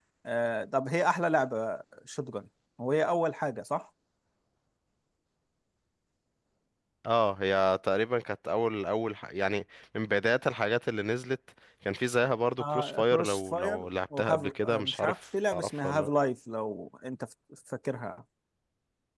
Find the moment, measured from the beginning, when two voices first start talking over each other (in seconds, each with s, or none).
12.6 s